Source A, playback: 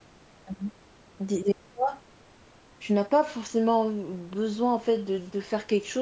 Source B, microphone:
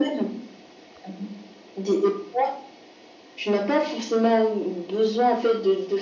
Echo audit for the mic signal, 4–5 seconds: echo only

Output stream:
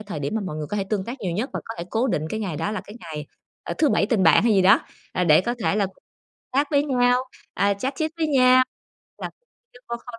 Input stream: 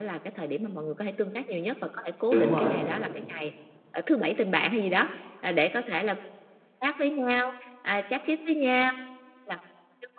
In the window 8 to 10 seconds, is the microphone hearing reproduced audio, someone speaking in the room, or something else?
echo only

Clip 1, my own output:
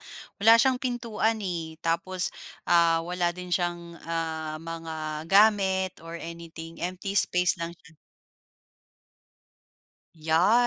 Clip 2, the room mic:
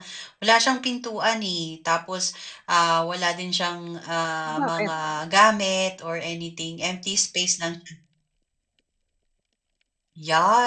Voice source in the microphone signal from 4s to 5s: both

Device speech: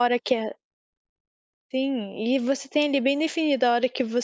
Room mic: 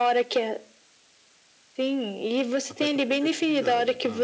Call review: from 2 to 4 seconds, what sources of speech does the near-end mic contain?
both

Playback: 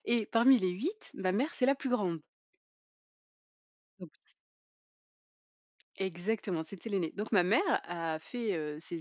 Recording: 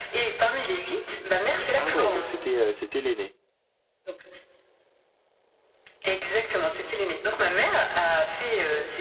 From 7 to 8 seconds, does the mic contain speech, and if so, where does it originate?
echo only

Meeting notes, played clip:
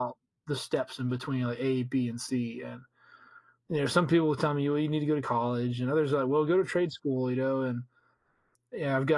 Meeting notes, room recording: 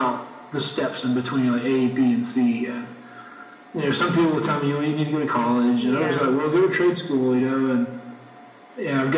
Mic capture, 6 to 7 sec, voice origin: both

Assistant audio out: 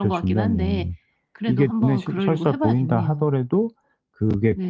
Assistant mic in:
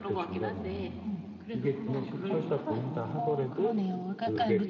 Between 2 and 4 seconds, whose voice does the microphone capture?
both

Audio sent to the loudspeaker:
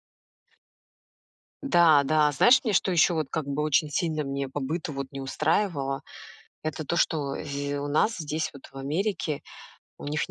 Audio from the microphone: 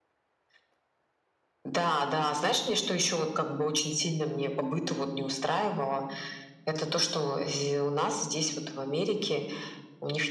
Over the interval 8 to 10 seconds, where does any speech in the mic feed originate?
echo only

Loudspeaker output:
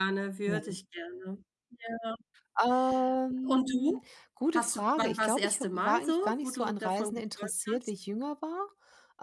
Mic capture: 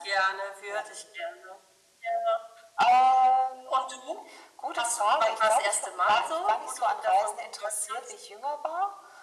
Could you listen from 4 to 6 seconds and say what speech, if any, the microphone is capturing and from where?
echo only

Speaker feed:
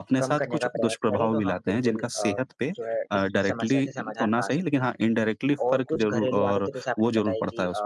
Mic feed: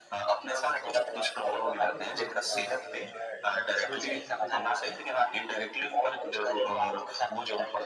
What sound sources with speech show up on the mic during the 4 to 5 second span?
both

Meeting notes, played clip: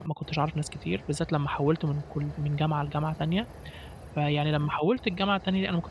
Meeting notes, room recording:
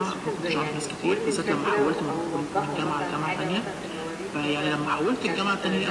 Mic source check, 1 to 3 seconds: both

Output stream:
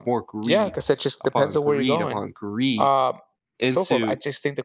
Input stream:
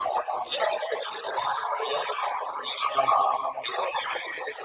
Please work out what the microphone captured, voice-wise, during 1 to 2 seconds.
echo only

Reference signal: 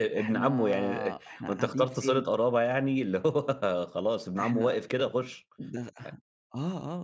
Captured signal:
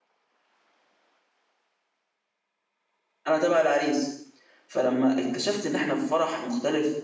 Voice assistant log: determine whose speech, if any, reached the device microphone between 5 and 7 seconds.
user only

